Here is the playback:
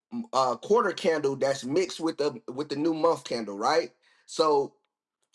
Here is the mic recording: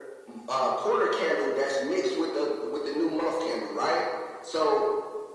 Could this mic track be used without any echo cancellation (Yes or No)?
No